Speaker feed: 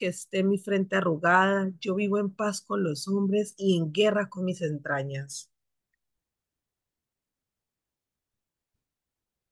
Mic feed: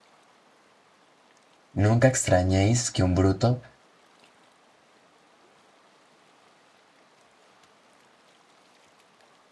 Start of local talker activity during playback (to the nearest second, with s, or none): 2 s